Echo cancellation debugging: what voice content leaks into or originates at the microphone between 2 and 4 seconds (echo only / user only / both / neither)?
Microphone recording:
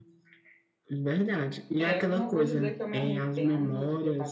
both